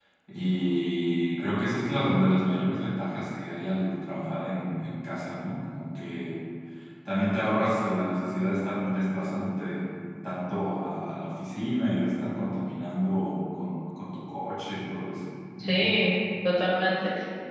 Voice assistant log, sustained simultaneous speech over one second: none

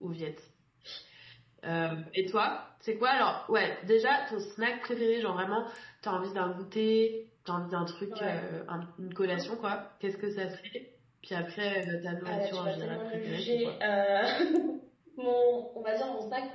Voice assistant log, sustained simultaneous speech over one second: present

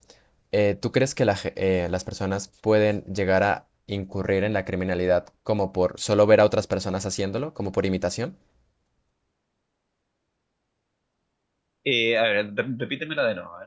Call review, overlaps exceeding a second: none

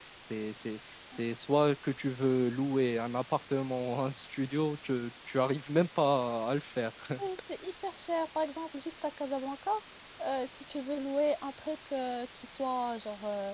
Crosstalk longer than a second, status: none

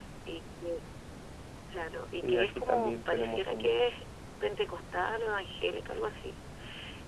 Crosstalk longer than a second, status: present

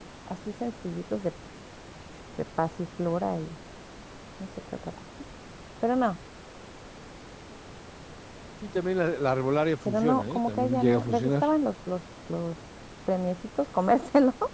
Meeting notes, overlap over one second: present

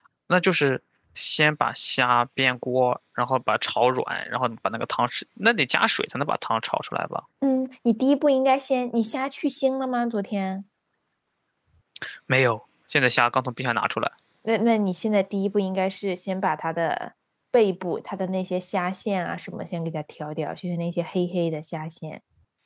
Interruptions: none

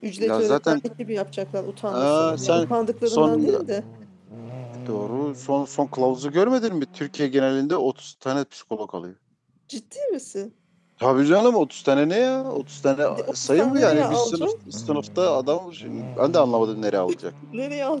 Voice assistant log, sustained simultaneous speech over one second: present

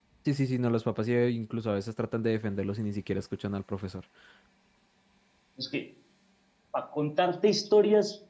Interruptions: none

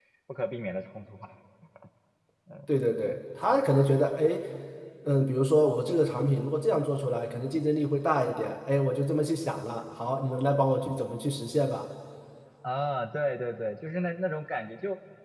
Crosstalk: none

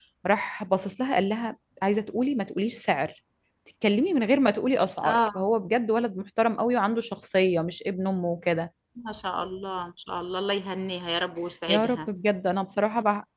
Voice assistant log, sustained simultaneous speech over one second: none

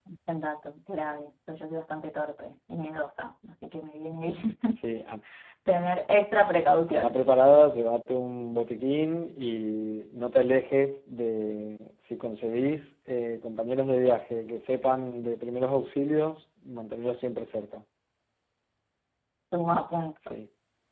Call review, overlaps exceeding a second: none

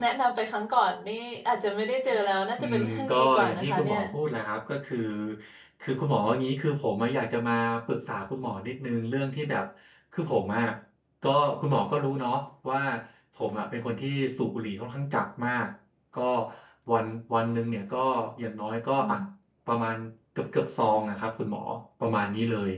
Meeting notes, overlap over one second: present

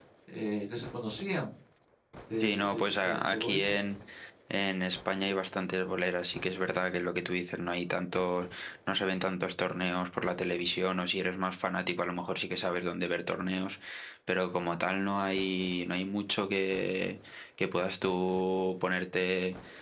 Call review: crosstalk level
present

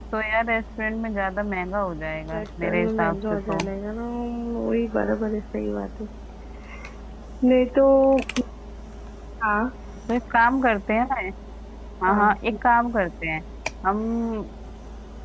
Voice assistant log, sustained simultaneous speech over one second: present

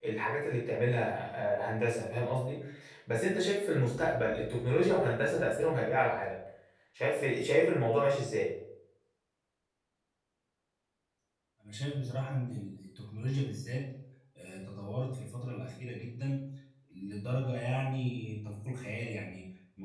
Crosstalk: none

